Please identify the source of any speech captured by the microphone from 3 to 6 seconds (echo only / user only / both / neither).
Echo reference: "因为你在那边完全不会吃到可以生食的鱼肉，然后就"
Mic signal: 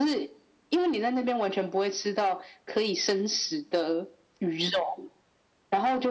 echo only